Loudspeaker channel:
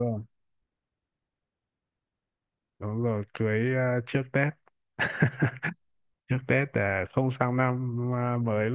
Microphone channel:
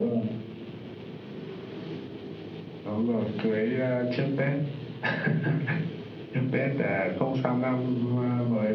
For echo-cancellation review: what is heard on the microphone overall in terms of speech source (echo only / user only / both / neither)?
echo only